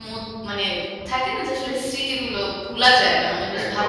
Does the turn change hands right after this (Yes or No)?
Yes